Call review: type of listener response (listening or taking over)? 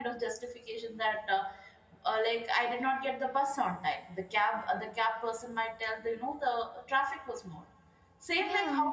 listening